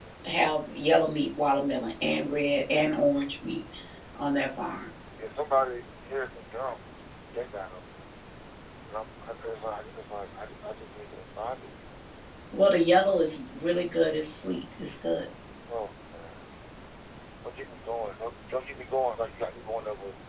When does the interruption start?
none

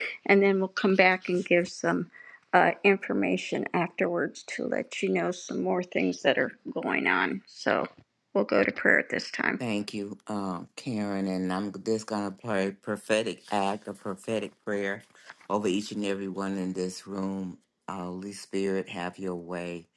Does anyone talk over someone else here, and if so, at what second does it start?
none

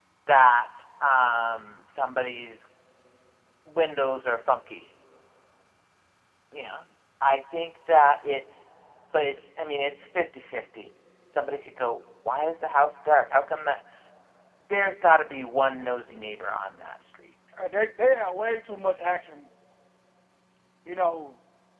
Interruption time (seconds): none

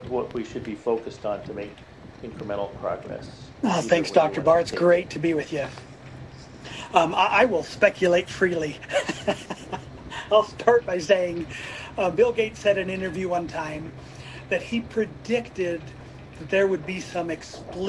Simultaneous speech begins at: 3.6 s

